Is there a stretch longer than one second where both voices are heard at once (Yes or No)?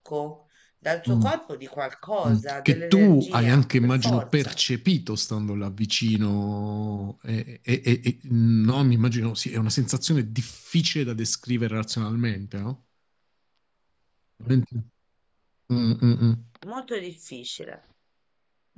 Yes